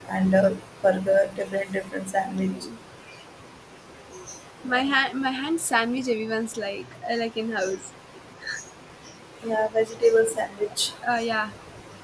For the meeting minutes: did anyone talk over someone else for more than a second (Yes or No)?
No